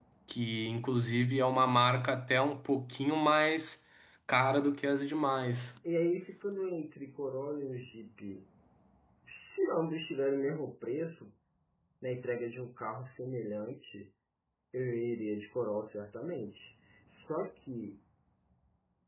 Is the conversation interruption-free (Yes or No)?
Yes